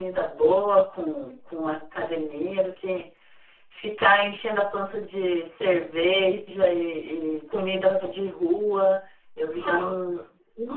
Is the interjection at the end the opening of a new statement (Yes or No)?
No